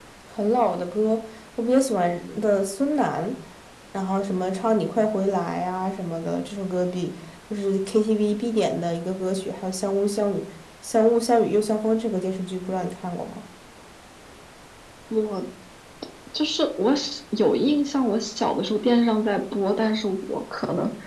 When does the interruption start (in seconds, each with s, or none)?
none